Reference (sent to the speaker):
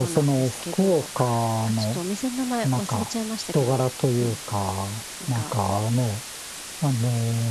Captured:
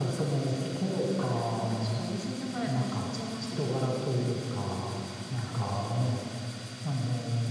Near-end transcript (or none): none